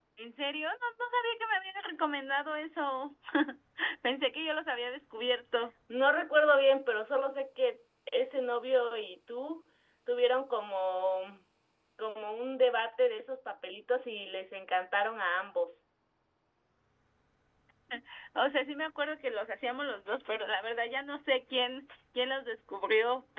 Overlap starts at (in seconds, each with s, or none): none